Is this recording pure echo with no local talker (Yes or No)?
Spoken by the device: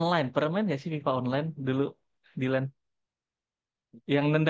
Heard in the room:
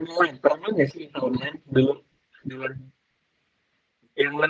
Yes